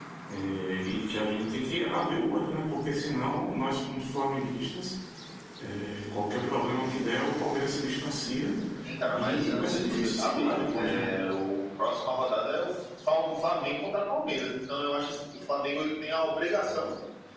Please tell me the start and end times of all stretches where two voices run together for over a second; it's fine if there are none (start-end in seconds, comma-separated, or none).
9.1-11.1